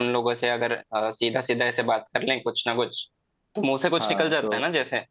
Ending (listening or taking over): taking over